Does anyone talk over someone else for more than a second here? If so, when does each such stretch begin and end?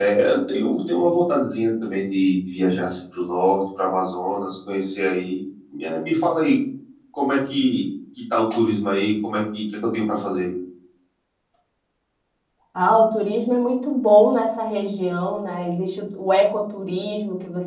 none

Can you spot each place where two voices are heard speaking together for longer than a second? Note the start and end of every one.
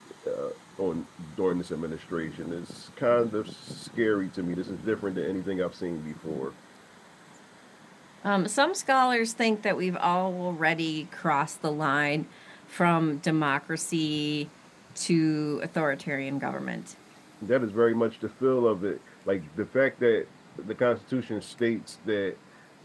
none

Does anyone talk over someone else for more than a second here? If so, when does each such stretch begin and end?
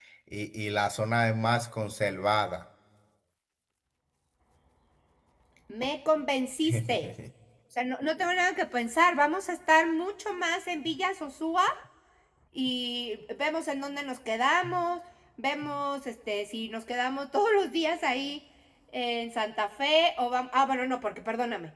none

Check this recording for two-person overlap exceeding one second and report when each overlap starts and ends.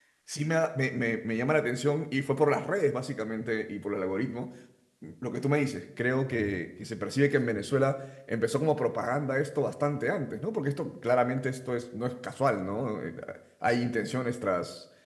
none

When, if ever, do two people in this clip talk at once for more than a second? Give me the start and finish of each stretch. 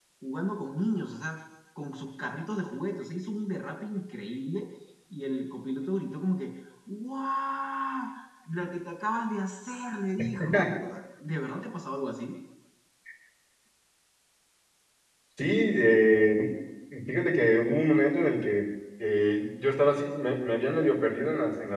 none

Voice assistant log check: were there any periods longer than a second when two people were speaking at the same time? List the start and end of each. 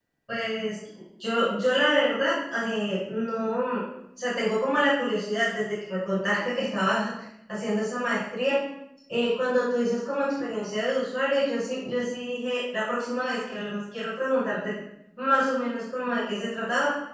none

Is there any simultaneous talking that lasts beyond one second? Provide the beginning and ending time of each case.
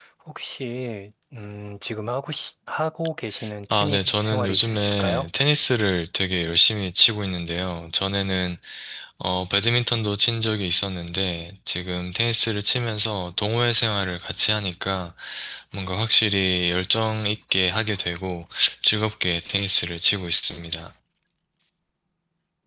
3.7-5.3

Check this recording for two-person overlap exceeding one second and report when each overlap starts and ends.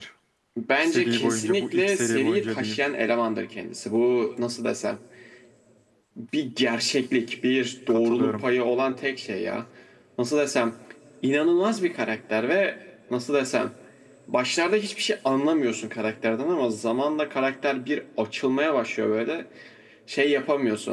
0.8-2.8

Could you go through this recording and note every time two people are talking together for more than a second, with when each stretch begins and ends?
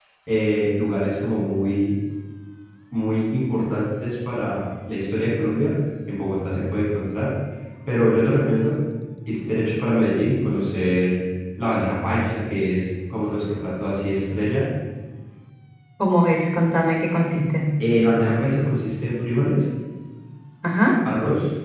none

